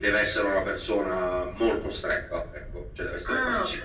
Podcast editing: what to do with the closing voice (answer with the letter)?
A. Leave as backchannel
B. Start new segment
B